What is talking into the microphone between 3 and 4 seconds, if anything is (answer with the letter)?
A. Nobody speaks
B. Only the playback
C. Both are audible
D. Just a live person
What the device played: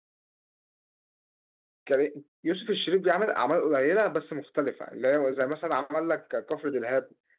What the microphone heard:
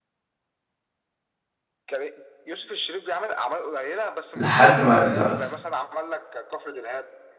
B